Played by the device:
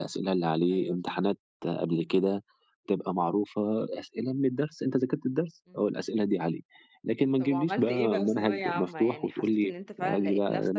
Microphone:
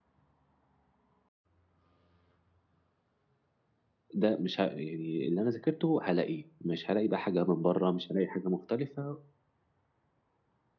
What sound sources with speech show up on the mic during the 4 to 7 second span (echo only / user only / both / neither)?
user only